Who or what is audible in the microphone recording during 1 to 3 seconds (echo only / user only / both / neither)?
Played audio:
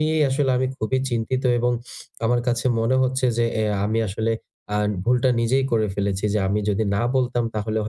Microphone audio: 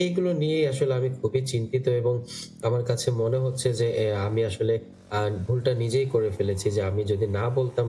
echo only